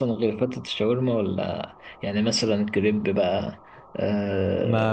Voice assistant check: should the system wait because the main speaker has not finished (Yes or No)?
No